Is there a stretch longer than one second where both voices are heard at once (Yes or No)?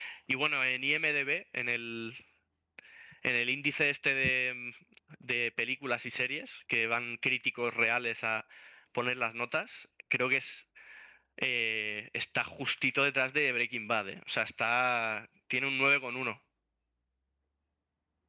No